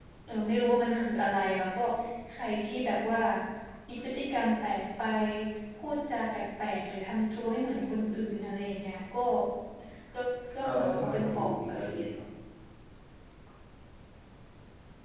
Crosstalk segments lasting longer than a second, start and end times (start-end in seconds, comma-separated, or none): 10.6-12.0